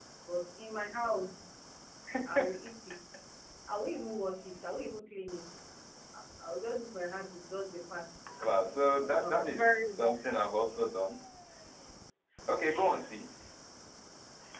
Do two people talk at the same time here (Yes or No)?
Yes